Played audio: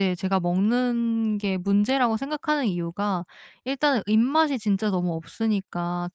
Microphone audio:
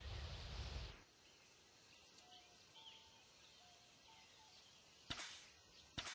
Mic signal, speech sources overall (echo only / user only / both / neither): neither